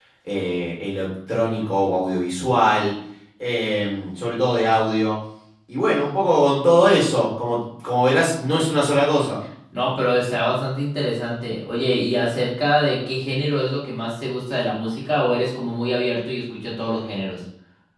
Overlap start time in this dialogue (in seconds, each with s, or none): none